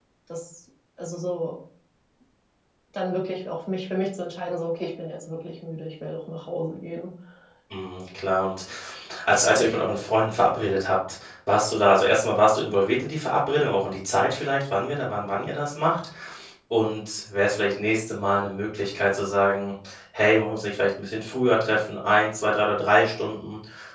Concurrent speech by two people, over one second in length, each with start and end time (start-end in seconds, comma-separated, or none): none